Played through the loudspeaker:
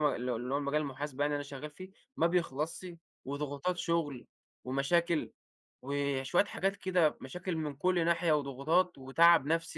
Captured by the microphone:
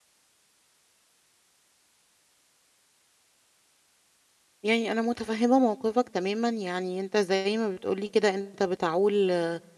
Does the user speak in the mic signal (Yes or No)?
Yes